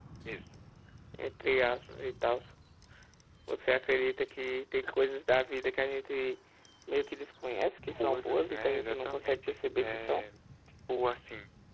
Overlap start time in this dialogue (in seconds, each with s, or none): 7.9 s